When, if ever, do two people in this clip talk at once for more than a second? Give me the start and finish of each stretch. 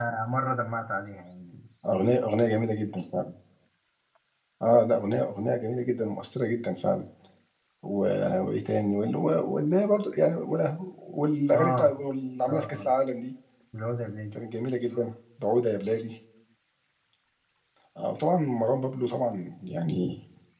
none

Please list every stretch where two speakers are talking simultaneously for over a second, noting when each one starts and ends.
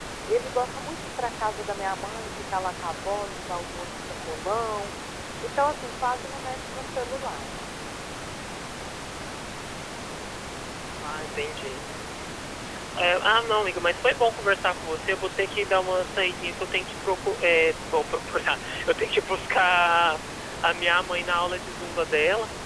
none

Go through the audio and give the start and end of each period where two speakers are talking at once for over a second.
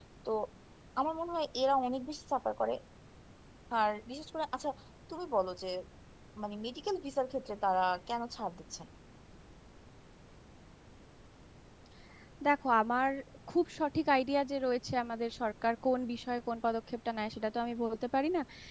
none

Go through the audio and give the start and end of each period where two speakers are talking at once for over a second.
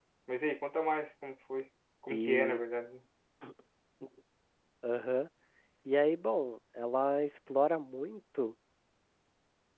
none

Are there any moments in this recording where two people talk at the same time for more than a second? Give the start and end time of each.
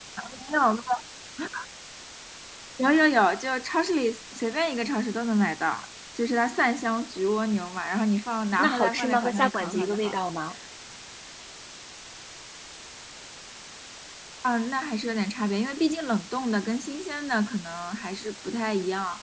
8.6-10.2

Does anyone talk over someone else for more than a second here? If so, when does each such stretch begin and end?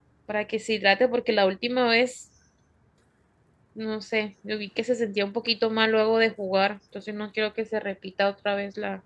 none

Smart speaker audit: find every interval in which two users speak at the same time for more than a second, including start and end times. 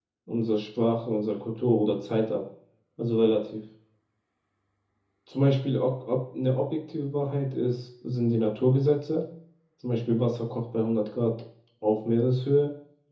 none

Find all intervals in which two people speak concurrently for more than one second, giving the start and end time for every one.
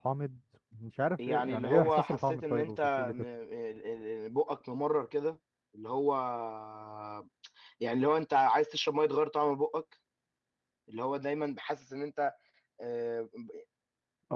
1.3-3.2

